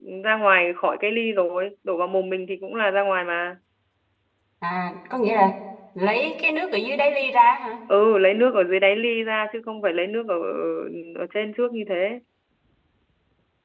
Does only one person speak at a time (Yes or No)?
Yes